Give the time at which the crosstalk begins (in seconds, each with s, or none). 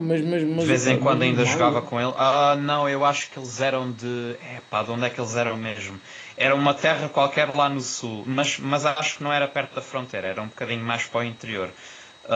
0.6 s